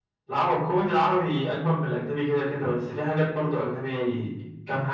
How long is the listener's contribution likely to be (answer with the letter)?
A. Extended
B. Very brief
B